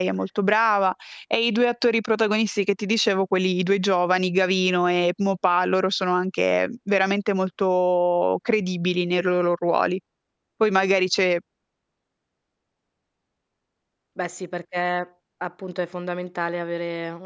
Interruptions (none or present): none